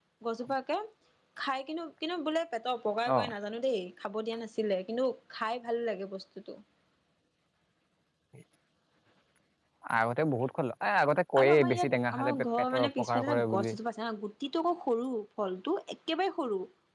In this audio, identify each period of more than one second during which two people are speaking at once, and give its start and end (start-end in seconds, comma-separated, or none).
11.4-13.7